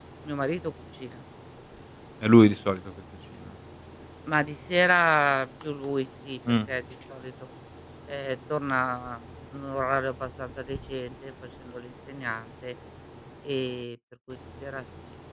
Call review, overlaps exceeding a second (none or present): none